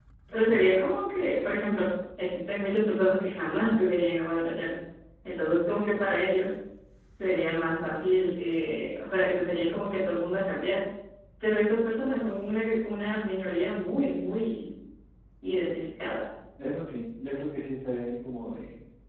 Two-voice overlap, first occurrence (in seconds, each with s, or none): none